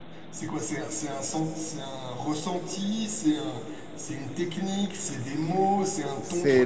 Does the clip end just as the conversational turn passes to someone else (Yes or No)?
Yes